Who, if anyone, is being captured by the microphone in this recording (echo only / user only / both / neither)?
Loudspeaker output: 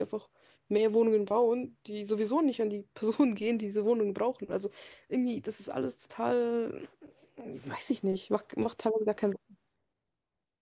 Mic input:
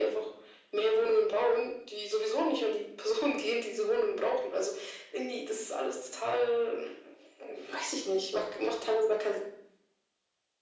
echo only